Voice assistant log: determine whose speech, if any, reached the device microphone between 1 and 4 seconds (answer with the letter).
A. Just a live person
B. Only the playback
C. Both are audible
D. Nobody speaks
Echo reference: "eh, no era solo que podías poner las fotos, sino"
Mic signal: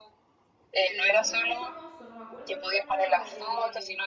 C